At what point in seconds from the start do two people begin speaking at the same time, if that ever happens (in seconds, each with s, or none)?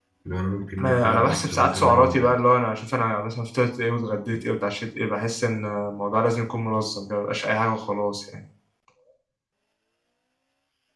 0.8 s